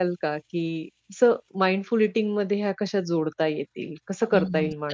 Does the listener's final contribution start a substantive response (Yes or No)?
Yes